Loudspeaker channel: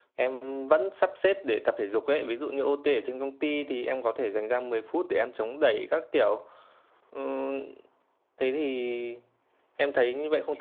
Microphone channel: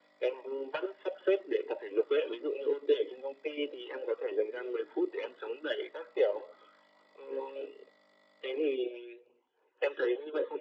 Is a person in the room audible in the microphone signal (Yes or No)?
No